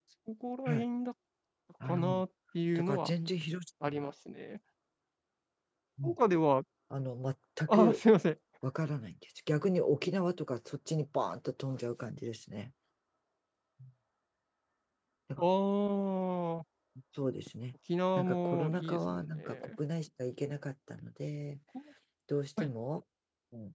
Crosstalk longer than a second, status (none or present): present